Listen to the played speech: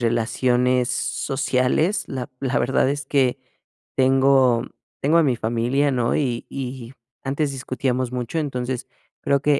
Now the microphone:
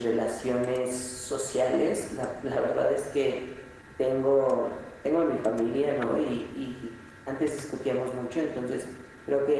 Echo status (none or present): present